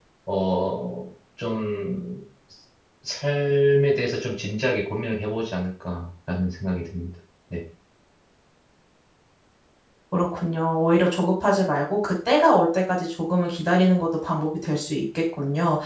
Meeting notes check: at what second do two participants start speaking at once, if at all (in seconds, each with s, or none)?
none